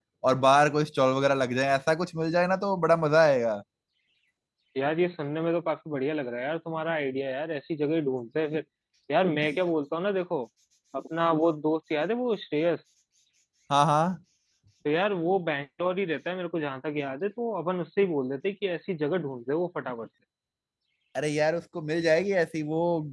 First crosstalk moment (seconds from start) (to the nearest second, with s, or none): none